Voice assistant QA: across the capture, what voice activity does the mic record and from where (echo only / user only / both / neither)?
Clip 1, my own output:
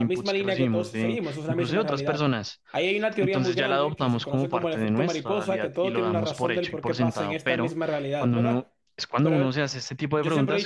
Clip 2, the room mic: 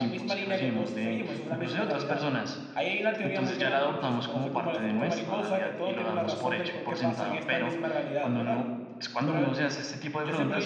echo only